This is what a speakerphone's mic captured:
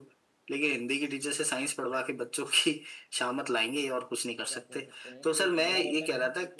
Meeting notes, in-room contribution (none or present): present